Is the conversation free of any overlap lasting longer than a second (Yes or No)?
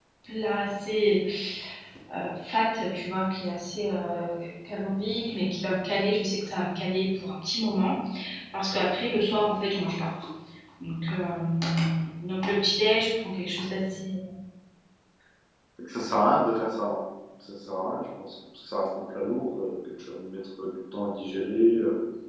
Yes